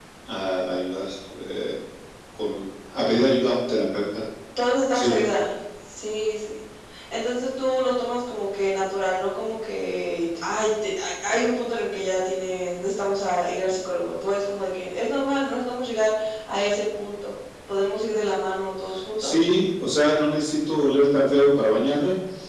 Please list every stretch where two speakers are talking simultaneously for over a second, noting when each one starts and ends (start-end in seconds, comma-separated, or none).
none